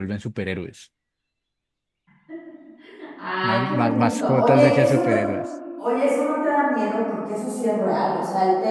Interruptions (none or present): present